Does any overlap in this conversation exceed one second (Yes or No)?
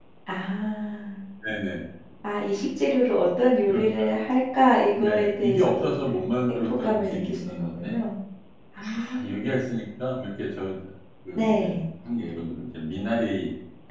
Yes